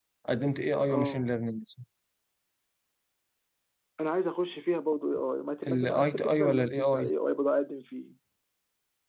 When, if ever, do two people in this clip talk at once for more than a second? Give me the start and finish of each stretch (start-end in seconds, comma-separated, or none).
5.7-7.1